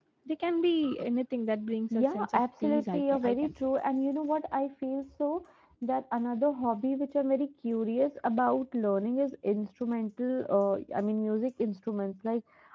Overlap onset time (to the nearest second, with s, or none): 2 s